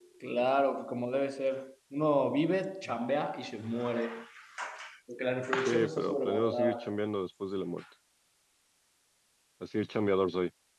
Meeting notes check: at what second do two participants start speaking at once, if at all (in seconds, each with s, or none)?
5.6 s